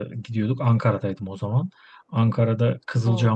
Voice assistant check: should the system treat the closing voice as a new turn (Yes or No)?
No